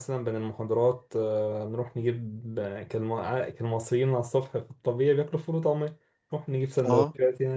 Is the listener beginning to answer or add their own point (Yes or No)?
No